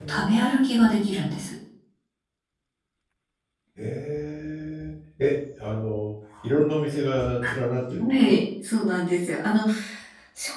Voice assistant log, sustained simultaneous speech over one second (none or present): none